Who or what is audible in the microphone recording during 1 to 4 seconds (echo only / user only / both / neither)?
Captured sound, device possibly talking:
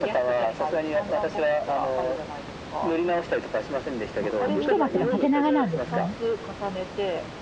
echo only